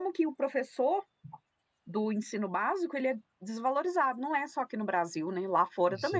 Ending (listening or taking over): taking over